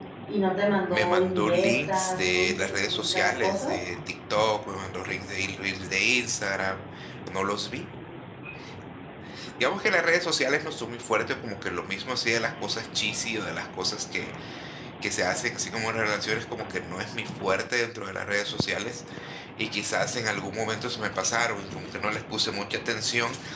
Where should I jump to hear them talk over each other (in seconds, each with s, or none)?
0.9 s